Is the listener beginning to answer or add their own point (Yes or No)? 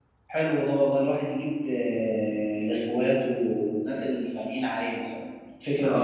Yes